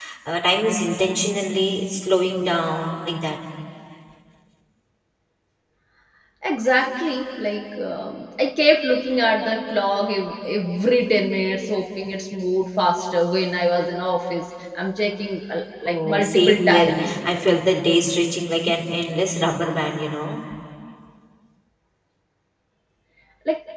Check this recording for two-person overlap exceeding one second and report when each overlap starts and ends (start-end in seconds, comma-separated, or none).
15.8-17.1